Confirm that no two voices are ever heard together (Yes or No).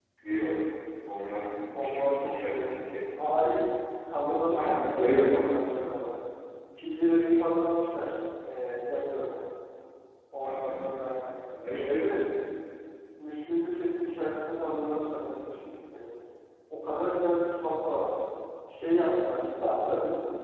No